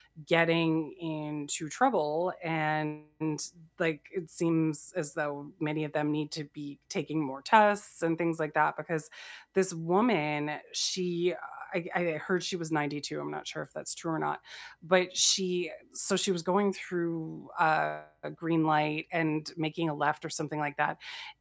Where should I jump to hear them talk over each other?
none

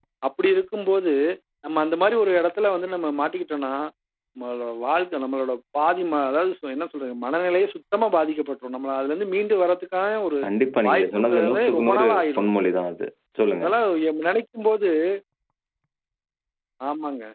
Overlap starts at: 11 s

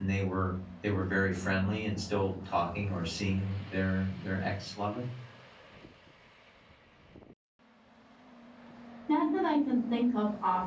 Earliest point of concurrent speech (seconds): none

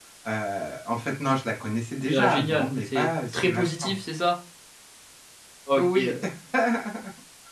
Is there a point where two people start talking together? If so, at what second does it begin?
2 s

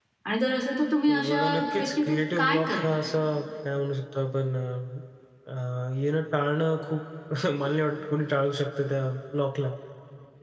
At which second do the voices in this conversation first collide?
1 s

